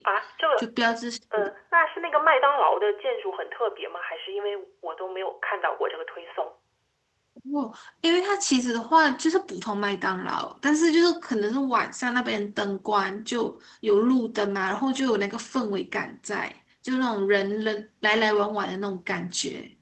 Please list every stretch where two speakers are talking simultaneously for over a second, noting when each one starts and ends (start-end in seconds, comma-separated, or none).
none